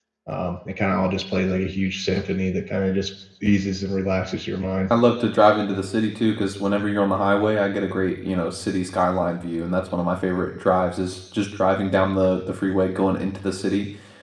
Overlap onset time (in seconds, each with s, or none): none